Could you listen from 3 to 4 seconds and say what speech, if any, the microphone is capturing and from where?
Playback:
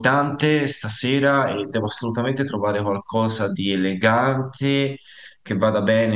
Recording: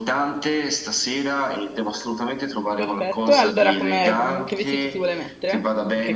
both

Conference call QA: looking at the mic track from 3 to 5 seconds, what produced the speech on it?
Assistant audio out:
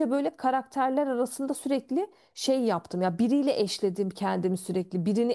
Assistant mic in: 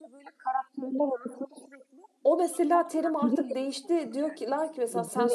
both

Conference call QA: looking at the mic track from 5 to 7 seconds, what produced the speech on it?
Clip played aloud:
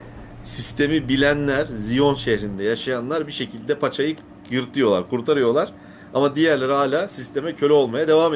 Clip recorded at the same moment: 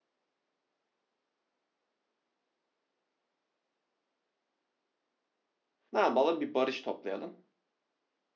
user only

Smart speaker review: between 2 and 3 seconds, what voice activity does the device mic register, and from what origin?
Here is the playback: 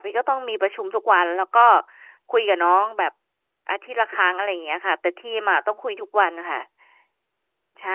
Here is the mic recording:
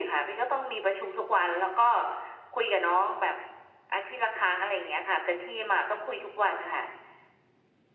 echo only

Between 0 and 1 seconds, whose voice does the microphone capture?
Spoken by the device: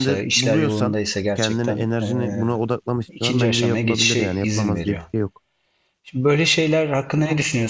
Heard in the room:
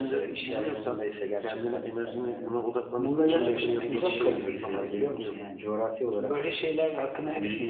echo only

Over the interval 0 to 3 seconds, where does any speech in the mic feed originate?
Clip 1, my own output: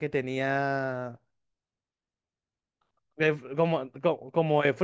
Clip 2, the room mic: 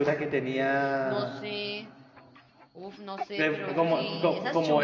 both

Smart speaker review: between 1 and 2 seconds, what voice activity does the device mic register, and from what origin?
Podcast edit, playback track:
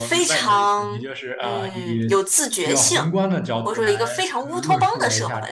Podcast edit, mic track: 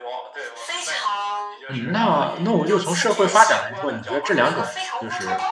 both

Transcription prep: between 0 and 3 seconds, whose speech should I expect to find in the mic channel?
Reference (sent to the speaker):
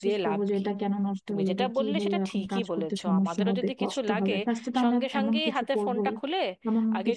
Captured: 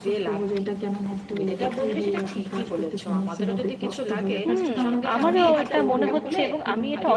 echo only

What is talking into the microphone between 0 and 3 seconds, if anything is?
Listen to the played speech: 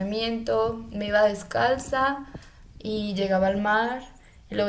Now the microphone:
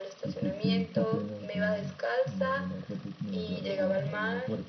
both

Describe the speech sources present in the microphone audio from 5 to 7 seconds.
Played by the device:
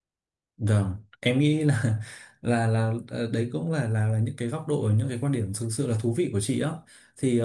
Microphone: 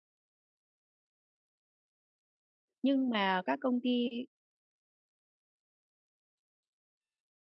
neither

